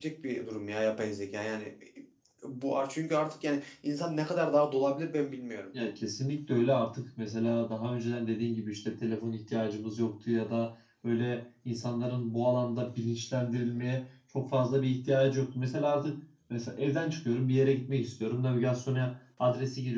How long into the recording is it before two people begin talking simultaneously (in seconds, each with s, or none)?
none